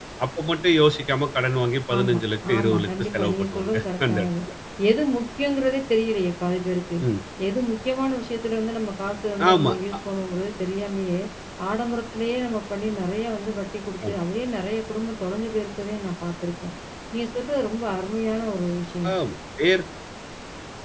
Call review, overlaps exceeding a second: present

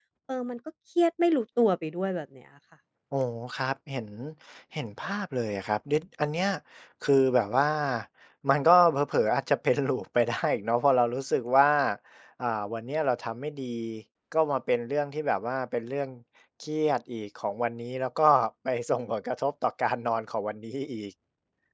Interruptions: none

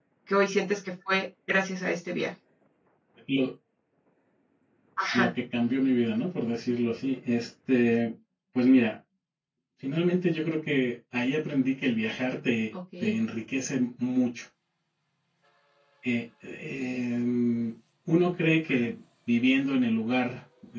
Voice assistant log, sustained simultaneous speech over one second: none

